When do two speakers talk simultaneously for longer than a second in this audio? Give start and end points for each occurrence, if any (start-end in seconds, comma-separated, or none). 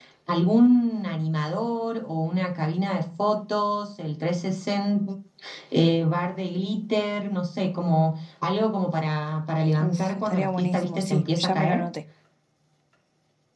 9.8-11.9